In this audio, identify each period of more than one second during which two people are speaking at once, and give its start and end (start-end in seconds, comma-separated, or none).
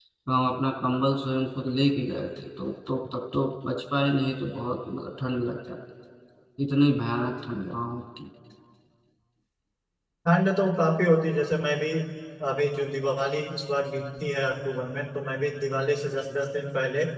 none